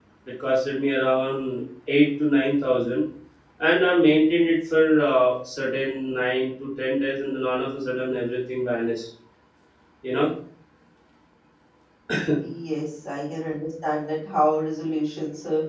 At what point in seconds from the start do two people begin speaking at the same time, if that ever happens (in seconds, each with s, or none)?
none